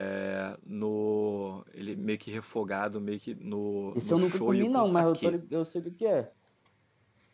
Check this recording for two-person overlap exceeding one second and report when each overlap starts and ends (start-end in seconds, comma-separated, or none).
3.9-5.3